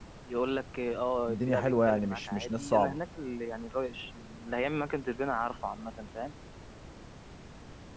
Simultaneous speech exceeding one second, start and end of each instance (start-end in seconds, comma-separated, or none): 1.3-3.0